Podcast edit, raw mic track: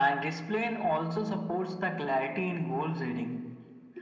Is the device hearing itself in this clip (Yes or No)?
Yes